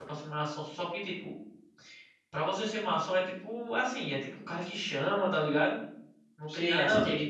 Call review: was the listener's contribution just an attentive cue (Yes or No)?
No